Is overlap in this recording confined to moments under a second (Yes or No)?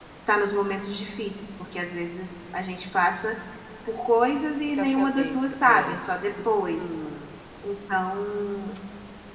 No